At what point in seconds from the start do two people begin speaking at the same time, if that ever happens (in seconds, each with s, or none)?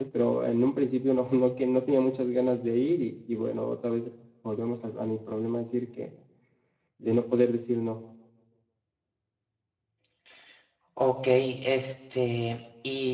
none